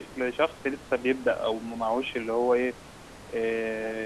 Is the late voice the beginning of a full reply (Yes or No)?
No